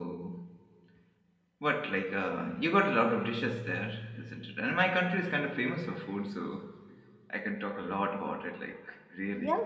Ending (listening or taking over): taking over